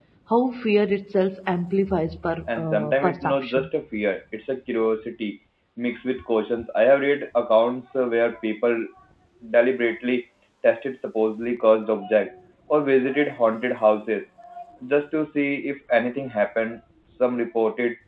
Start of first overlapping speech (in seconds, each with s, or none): 2.5 s